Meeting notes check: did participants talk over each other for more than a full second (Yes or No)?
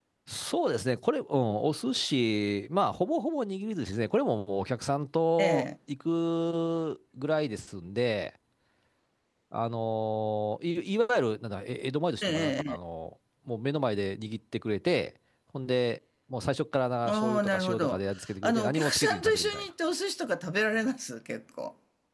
Yes